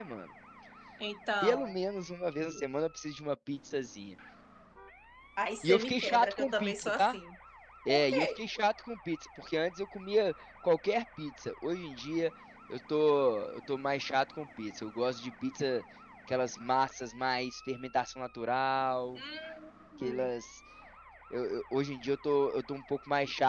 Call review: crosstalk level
present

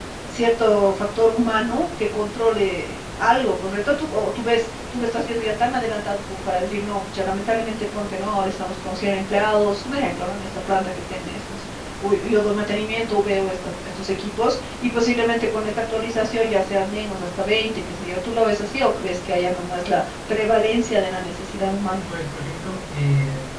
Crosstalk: none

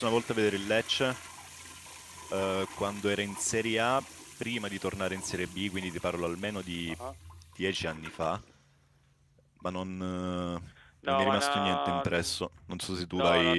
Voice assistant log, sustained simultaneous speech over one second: present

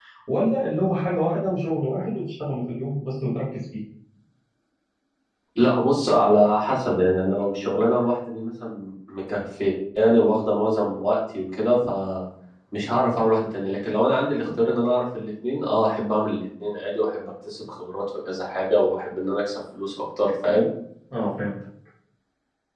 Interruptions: none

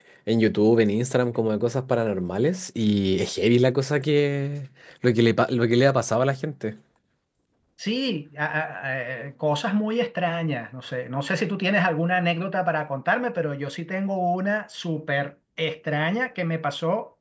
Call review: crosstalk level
none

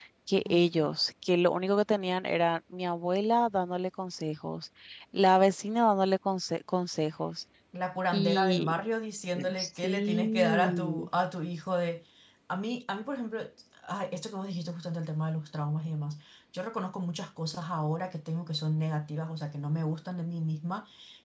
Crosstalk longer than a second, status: present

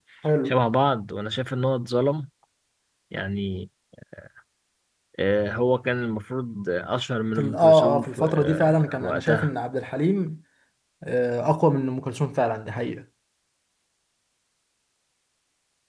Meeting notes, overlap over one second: present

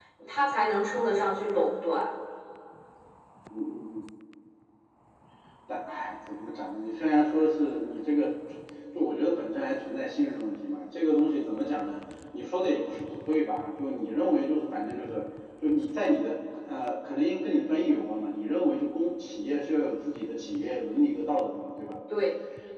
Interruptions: none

